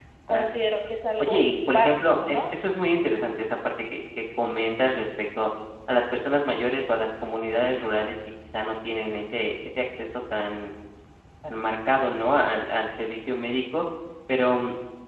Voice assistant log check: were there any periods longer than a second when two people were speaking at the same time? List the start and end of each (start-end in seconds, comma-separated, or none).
1.2-2.4